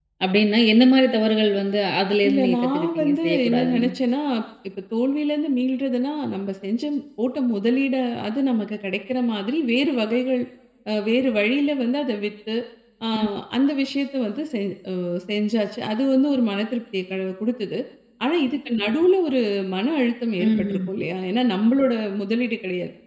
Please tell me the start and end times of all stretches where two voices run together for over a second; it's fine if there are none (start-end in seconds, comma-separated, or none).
2.3-3.9